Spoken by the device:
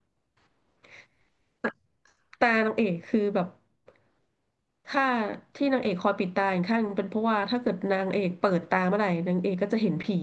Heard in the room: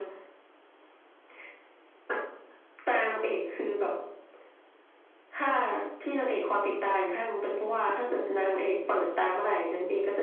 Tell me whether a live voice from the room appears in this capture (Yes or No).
Yes